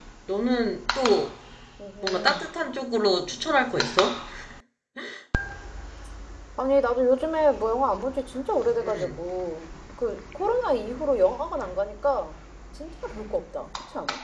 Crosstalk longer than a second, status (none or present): none